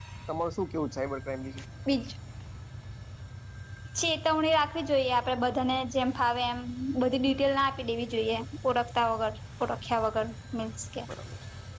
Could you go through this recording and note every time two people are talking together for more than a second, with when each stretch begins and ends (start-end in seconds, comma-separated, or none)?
none